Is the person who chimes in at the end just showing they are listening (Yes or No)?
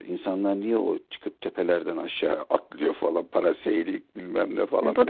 No